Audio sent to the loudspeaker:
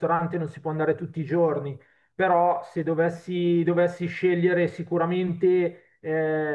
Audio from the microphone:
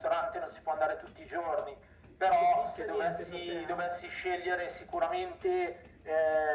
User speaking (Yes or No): Yes